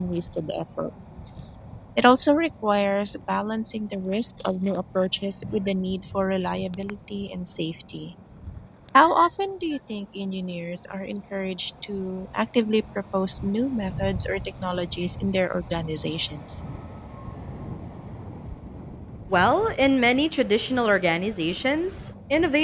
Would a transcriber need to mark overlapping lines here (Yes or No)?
No